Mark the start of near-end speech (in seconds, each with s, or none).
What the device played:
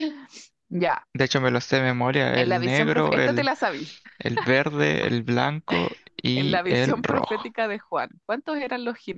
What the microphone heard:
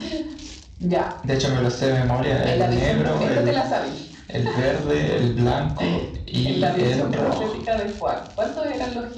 none